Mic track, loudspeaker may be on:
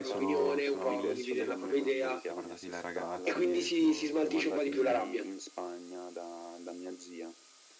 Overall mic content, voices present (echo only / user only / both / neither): both